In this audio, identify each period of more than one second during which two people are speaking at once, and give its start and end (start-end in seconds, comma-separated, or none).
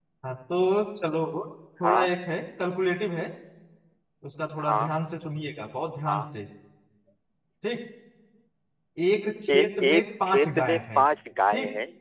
9.5-11.0